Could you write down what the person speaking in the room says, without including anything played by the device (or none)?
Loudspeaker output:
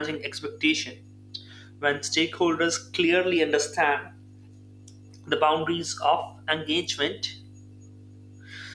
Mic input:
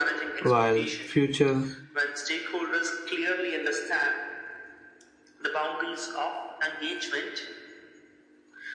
while future